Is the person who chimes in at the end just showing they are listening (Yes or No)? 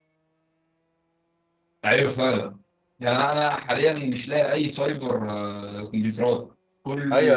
No